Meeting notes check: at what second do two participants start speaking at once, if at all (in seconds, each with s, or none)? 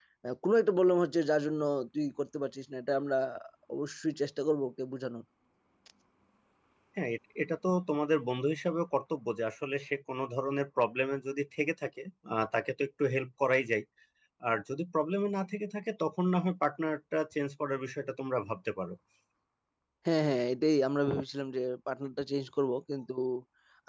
none